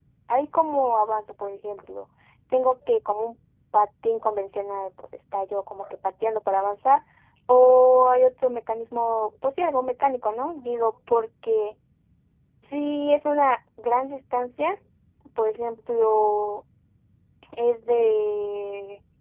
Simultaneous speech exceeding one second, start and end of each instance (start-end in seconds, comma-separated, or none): none